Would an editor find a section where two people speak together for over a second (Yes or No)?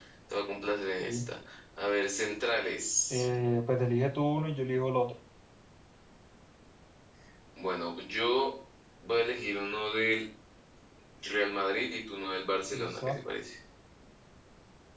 No